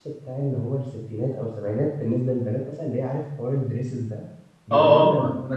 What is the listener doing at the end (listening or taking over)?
taking over